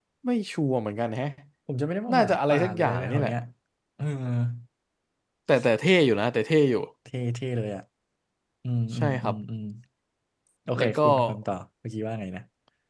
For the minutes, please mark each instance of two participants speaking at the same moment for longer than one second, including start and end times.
2.1-3.3

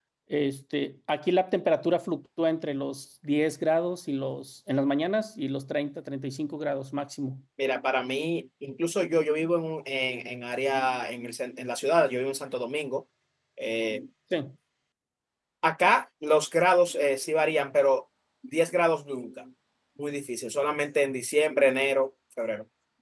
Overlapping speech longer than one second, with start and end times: none

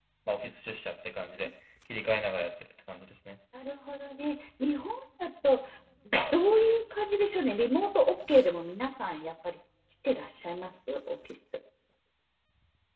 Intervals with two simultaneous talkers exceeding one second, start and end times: none

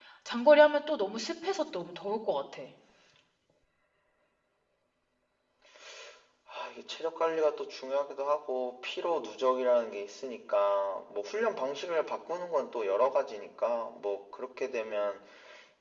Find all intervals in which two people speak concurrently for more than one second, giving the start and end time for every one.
none

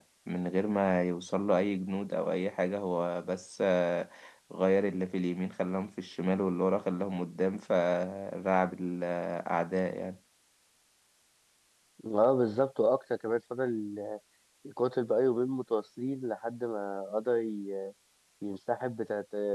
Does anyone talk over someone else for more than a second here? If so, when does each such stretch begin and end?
none

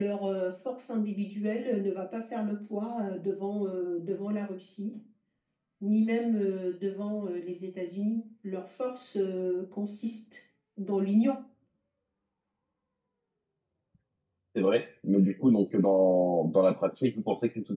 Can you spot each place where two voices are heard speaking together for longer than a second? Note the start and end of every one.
none

